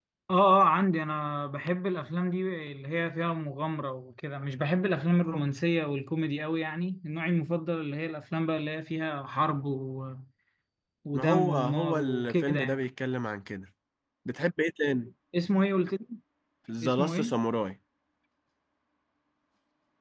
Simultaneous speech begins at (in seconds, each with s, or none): 11.1 s